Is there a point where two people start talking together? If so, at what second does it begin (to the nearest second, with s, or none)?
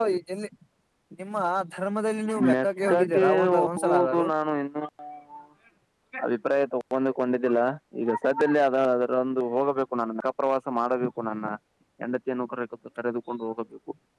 2 s